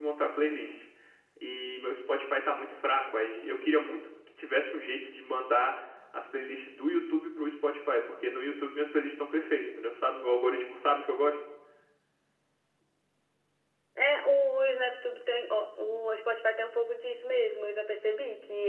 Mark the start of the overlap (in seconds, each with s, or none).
none